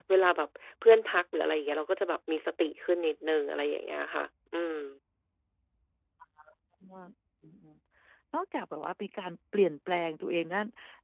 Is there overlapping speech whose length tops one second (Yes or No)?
No